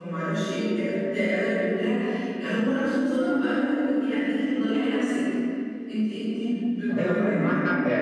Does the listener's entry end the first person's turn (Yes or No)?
Yes